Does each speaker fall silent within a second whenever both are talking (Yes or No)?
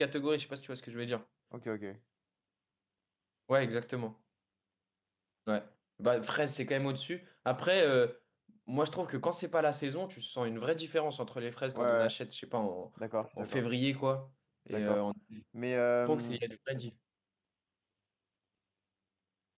Yes